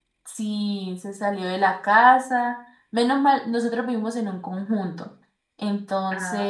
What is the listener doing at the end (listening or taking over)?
listening